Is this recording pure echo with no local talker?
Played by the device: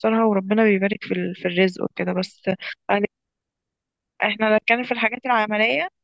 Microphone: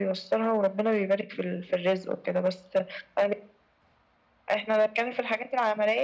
Yes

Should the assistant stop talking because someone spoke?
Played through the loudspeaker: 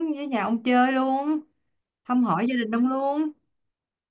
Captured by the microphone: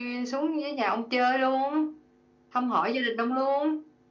No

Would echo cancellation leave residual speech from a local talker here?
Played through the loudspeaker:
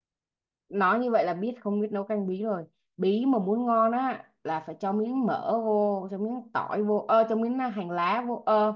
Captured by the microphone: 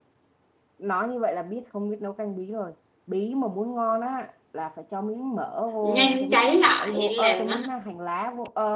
Yes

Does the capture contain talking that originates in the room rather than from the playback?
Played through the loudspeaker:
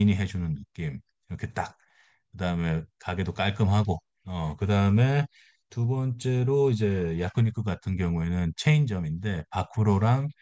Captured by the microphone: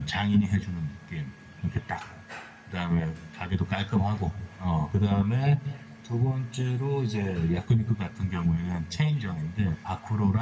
No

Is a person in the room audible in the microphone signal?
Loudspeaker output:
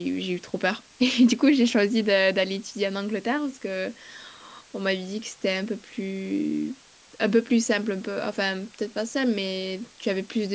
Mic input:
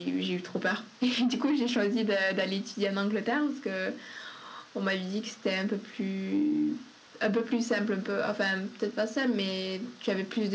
No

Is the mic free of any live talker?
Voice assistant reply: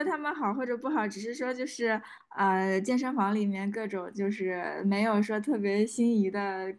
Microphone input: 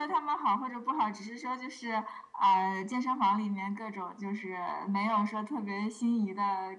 Yes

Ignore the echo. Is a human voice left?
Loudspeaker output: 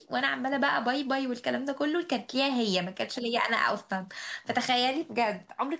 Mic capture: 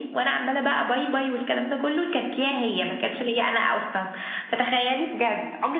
No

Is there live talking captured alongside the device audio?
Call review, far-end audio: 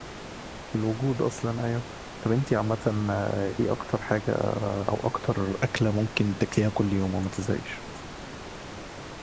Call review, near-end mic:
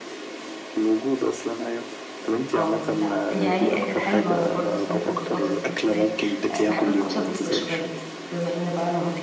Yes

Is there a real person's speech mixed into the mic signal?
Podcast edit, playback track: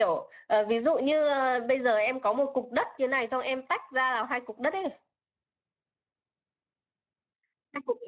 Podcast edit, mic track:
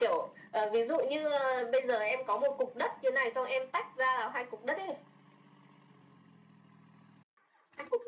No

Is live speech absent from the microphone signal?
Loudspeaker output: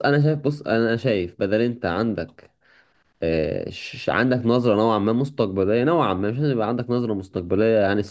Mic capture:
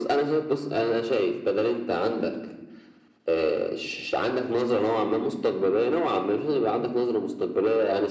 Yes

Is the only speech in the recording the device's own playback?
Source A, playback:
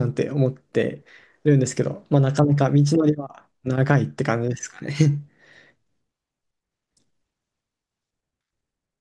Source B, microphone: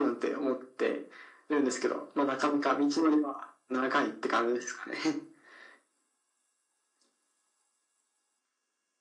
Yes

